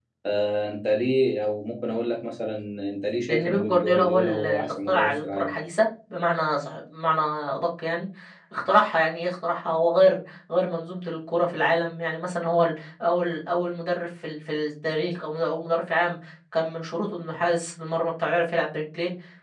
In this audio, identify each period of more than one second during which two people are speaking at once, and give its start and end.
3.3-5.5

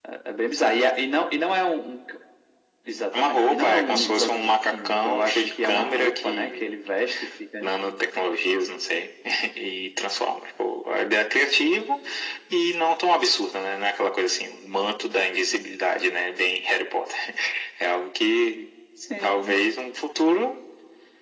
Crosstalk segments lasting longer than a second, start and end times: 3.2-6.7

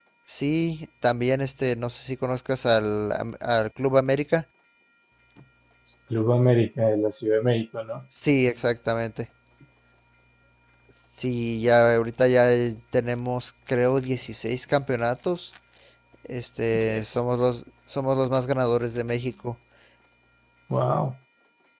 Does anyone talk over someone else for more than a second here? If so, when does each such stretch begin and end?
none

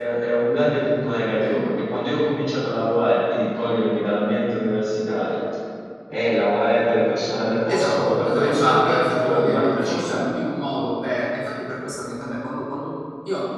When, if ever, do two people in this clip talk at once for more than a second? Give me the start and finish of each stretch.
7.7-10.3

